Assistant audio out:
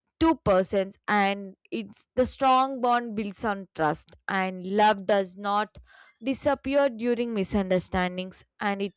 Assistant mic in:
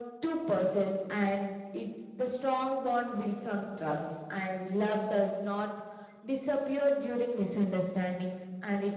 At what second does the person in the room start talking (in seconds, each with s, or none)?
none